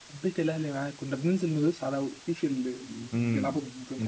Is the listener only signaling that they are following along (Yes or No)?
No